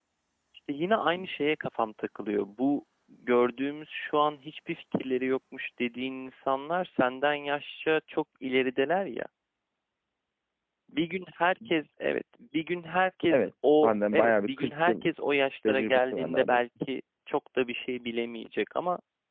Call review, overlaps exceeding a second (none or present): present